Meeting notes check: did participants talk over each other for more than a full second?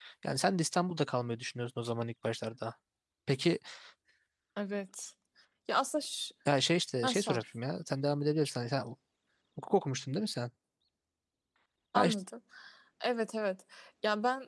No

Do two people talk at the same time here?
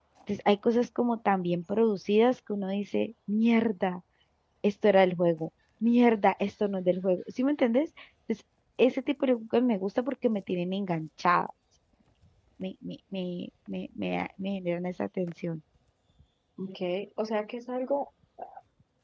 No

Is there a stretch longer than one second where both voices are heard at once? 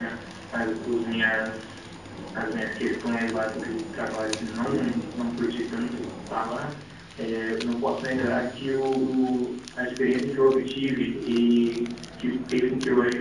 No

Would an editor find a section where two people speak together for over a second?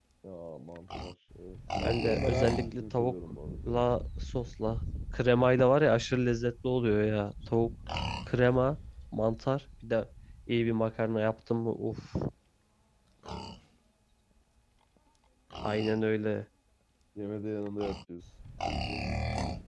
Yes, from 1.8 s

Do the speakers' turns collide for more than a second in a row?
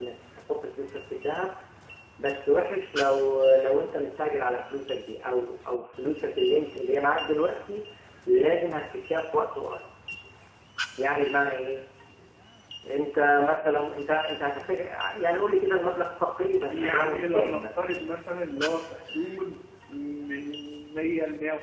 Yes, from 16.7 s

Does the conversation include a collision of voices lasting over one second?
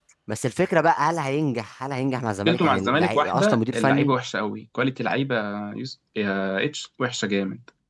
Yes, from 2.4 s

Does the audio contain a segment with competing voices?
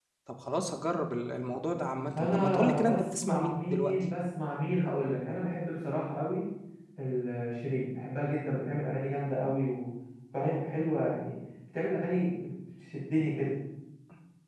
Yes, from 2.1 s

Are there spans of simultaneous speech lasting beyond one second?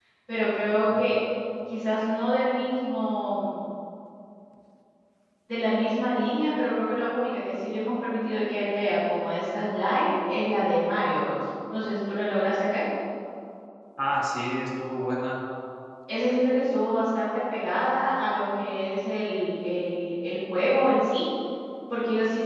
No

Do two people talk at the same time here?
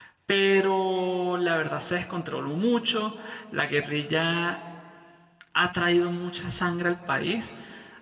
No

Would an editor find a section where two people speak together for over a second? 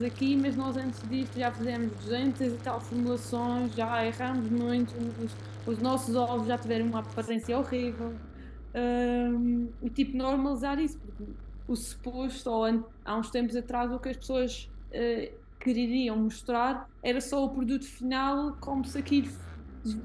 No

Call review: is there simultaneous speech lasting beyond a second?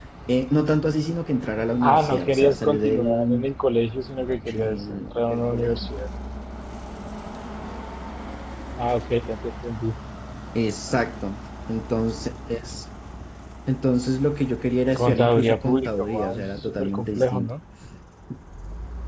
Yes, from 1.8 s

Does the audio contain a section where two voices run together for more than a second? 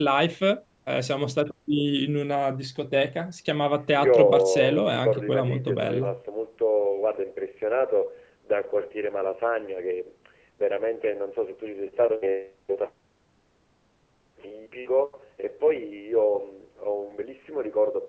Yes, from 4.0 s

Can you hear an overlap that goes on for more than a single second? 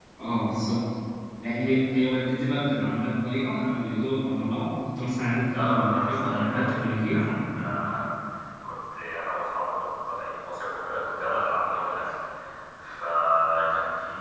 Yes, from 5.5 s

